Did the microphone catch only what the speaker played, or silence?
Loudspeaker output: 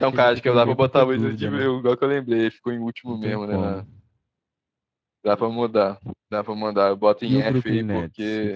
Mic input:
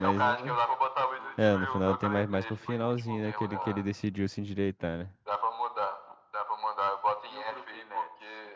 No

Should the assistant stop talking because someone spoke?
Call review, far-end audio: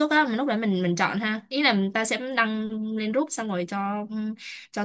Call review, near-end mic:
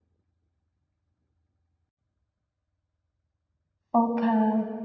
Yes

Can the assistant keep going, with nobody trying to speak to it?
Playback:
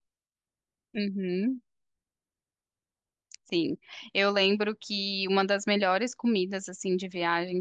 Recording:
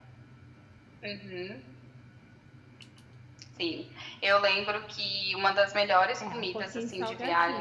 No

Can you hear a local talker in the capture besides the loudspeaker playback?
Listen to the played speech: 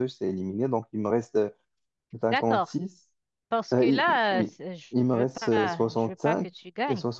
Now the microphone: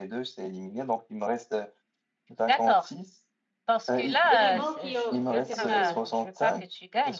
Yes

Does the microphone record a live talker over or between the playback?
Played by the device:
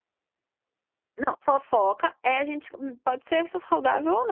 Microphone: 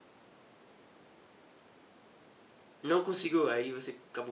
Yes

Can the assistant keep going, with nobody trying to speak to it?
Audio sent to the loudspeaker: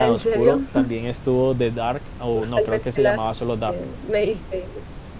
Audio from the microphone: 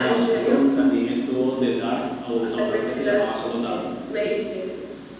Yes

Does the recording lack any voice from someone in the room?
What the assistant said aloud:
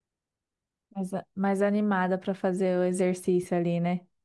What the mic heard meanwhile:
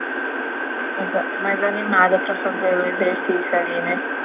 Yes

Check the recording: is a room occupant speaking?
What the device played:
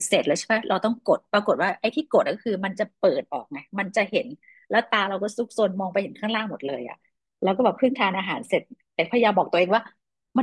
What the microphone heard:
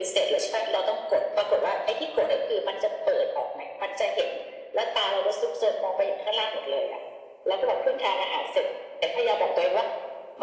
No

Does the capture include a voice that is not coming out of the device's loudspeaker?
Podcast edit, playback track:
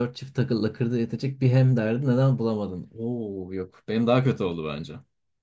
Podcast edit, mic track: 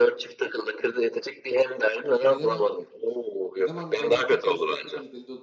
Yes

